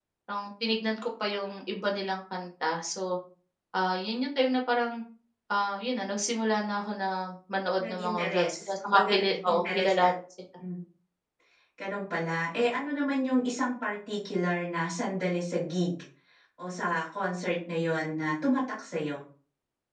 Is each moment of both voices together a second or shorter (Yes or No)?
No